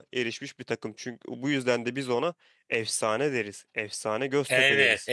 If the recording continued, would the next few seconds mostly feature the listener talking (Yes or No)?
Yes